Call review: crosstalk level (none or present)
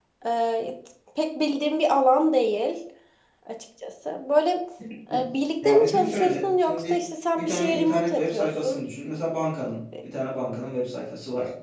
present